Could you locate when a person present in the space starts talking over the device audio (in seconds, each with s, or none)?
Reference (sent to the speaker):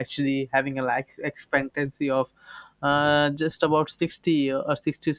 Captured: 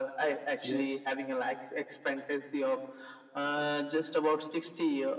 0.6 s